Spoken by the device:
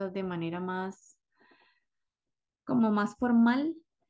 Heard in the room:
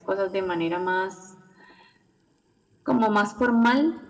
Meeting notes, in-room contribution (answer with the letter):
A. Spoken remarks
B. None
B